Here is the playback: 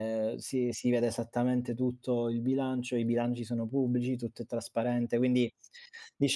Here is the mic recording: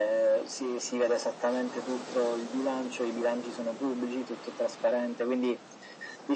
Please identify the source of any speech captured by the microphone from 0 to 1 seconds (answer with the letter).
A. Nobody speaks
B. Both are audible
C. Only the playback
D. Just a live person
C